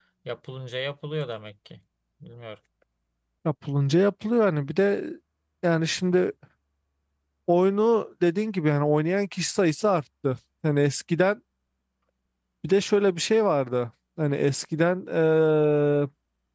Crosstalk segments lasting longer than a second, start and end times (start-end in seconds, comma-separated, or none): none